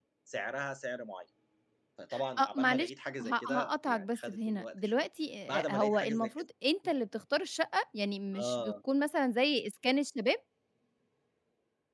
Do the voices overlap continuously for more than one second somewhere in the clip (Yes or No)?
Yes